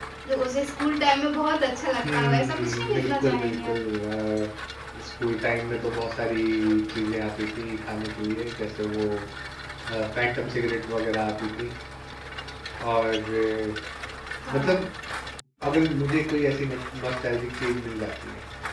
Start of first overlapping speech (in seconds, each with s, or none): 2.1 s